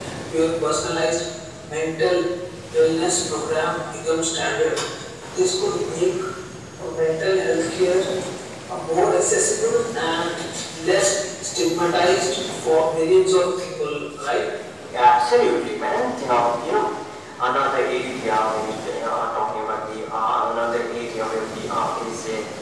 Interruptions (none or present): none